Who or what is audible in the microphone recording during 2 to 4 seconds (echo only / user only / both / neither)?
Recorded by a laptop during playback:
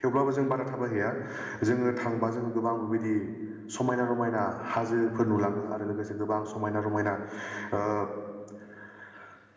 user only